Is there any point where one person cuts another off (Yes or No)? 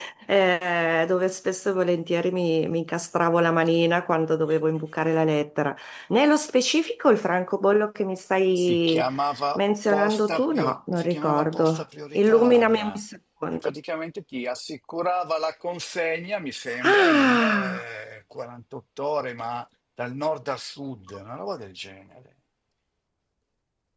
Yes